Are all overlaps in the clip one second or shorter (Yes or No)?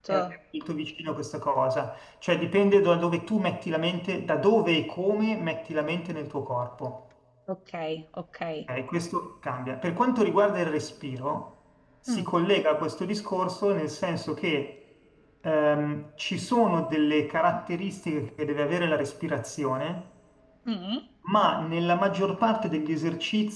Yes